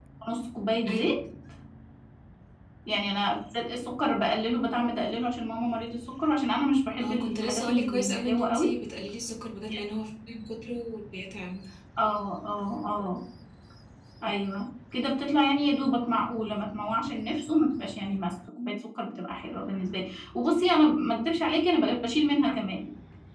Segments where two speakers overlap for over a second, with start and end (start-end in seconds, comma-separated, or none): 7.0-8.7